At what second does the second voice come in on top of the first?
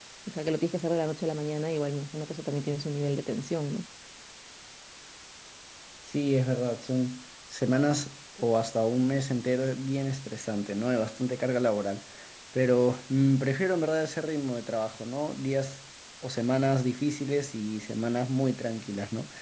none

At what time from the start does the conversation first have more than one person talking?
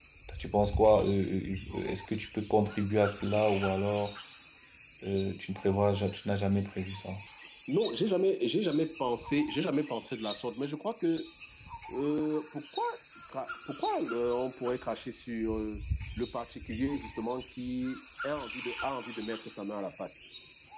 none

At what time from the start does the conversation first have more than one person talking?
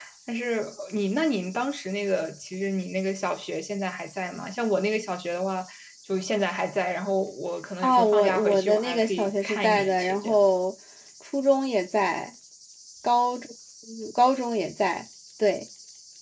7.8 s

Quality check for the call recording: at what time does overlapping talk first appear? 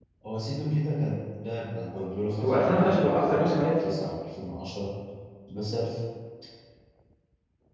2.4 s

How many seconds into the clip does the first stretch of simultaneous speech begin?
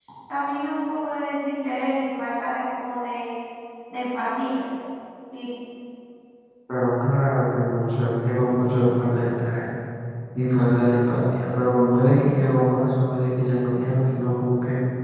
none

